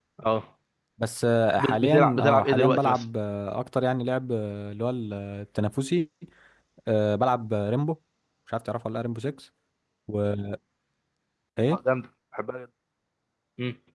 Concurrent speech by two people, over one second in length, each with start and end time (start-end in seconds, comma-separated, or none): 1.6-3.0